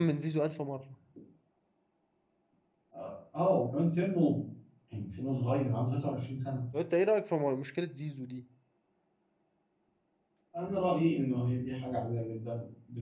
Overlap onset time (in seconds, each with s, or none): none